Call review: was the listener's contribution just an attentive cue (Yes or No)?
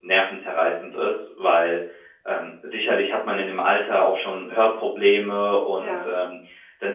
Yes